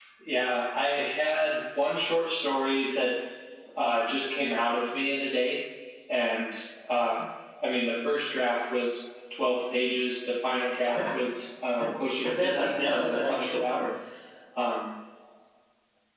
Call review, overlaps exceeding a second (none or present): present